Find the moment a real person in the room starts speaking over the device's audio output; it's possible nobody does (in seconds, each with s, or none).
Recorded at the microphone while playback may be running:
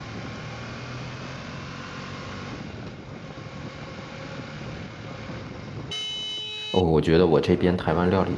6.7 s